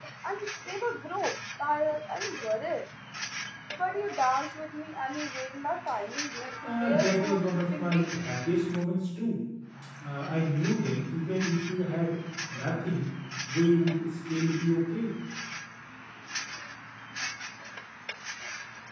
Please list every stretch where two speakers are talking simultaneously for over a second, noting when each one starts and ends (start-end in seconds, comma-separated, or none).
6.6-8.2